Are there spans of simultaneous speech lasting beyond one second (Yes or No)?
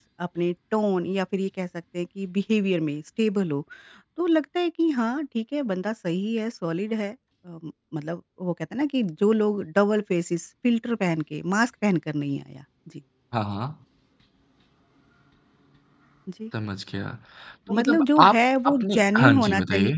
Yes